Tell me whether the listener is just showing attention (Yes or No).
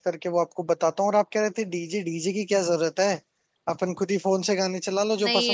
No